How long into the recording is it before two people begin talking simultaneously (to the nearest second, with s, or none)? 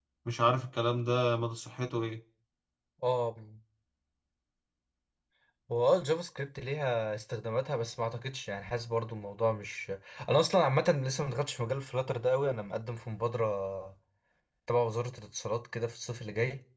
none